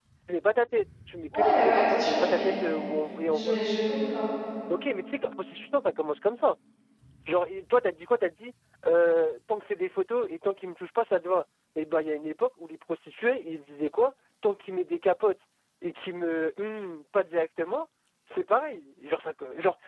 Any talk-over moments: Yes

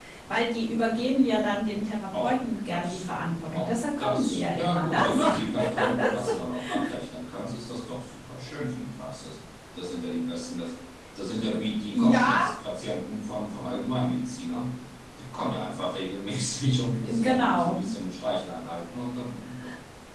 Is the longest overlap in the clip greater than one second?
Yes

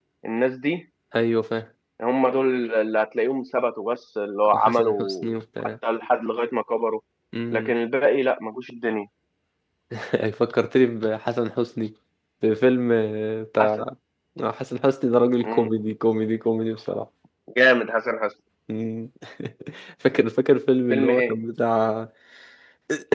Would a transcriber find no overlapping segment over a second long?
No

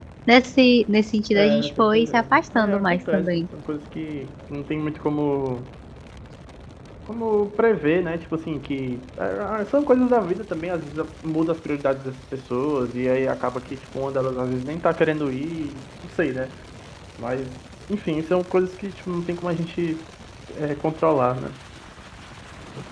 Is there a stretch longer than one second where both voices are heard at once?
Yes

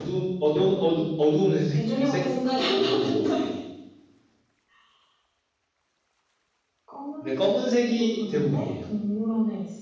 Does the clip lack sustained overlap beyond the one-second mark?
No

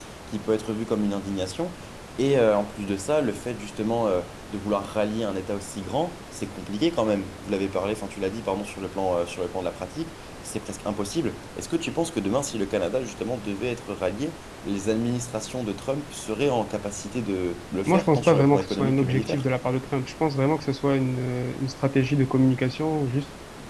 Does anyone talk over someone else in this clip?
Yes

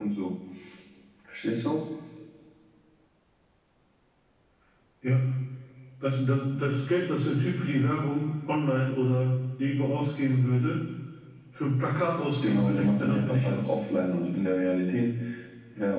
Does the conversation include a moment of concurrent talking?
Yes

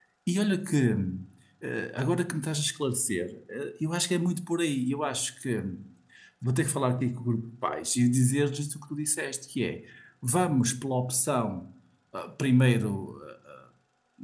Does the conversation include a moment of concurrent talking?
No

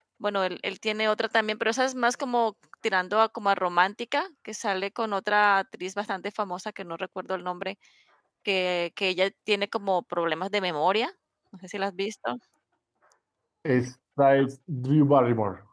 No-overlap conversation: Yes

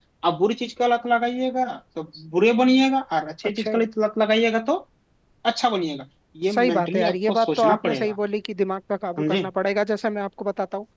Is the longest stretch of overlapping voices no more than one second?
No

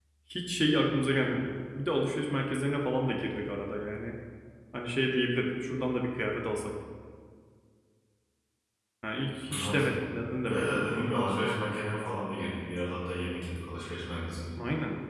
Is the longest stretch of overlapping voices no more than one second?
Yes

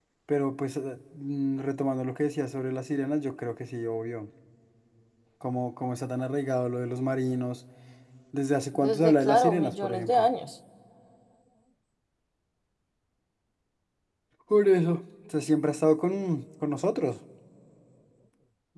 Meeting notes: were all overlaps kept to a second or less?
No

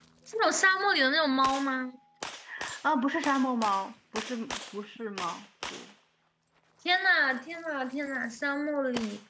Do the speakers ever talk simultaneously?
No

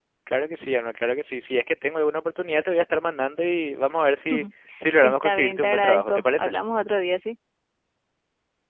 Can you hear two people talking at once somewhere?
Yes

